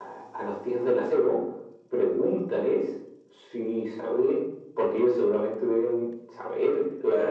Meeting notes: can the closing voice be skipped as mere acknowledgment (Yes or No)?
No